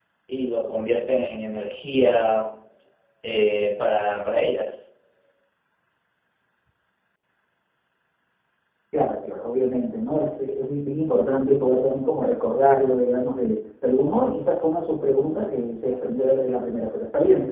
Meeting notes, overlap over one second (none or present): none